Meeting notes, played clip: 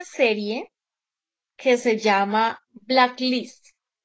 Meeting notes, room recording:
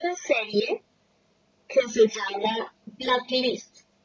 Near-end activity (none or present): none